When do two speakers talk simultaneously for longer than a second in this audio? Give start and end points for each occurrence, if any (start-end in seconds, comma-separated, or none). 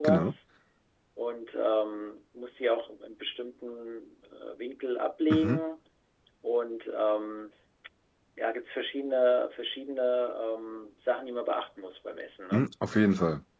none